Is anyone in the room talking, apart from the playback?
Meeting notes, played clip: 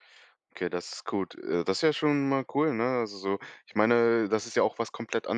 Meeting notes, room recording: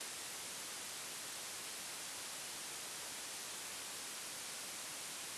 No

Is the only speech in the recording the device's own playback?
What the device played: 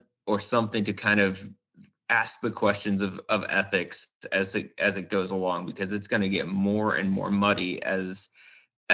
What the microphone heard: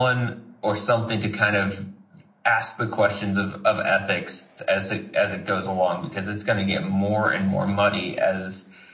Yes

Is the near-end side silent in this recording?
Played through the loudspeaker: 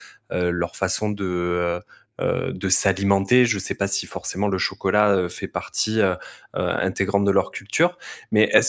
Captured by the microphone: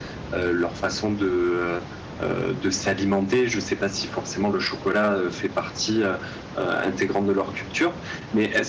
Yes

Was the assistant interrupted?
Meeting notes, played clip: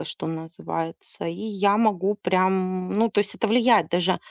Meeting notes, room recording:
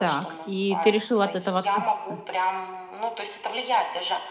Yes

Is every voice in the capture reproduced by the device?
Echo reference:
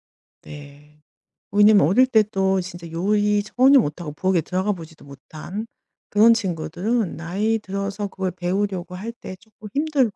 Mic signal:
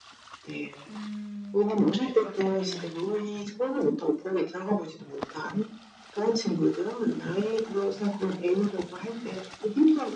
No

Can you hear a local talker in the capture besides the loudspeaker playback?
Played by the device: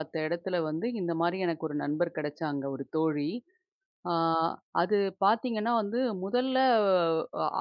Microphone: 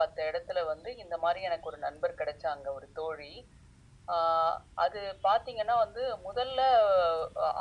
No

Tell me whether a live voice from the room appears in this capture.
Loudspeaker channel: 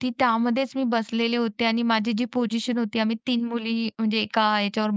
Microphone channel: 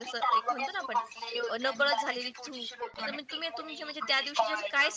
Yes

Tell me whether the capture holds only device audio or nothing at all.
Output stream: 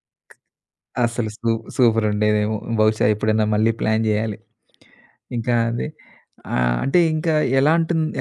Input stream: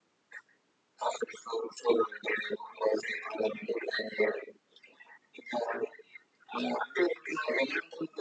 Yes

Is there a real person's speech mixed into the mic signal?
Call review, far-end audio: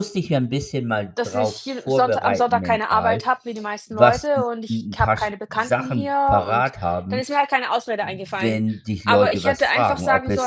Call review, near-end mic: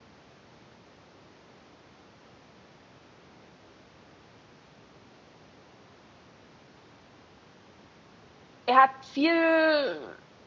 Yes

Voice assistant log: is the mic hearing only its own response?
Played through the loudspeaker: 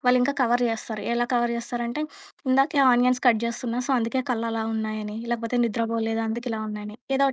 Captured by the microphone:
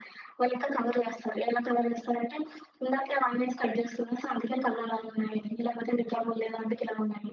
Yes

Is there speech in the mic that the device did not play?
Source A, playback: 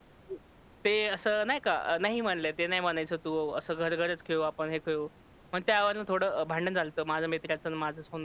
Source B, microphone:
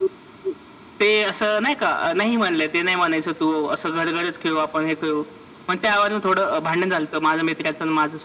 No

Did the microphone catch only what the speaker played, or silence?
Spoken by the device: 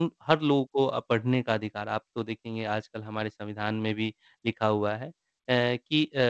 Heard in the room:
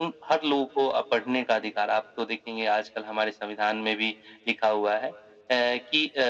Yes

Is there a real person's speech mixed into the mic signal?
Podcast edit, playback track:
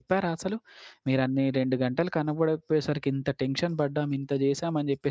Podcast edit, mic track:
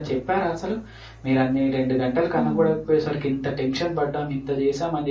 Yes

